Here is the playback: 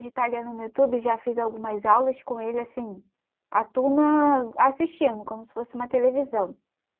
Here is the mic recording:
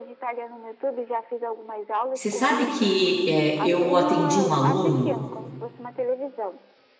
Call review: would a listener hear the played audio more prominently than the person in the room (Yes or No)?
No